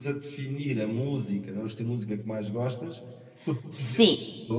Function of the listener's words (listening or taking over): listening